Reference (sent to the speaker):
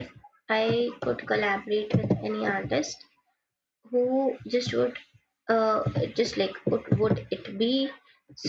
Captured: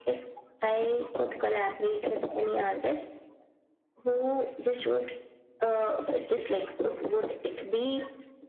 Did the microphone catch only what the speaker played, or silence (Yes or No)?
Yes